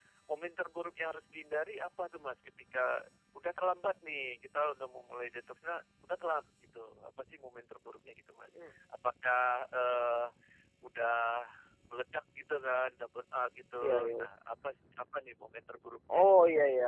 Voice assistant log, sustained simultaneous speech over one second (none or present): none